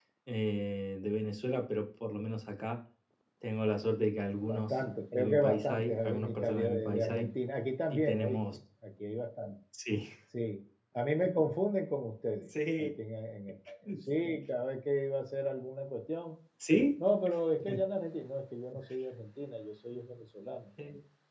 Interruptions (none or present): present